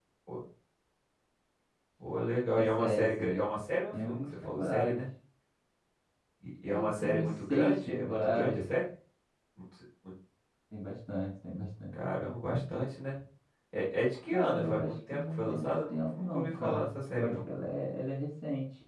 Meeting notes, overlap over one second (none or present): present